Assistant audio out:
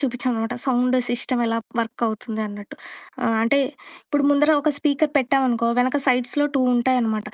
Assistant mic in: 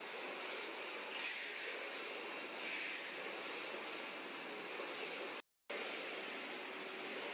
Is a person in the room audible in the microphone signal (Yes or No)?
No